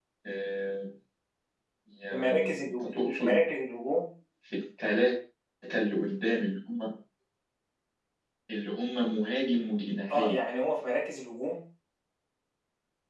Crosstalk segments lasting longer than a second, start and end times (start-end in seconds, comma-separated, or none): 2.1-3.4